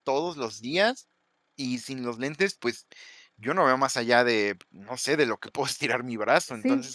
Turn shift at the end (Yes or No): Yes